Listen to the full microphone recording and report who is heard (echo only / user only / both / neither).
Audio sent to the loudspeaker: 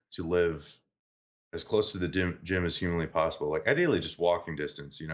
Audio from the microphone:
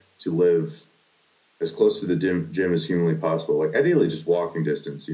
echo only